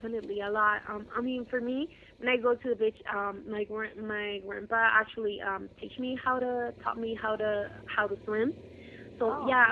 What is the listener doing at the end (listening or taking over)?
listening